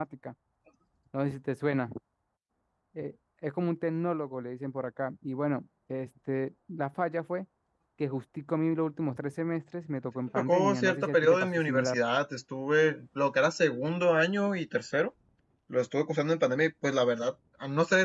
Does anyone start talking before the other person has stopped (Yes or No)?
Yes